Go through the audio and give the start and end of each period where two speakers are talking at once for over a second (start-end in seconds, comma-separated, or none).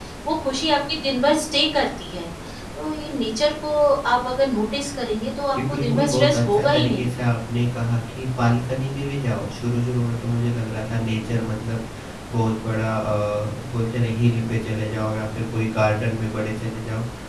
5.5-7.1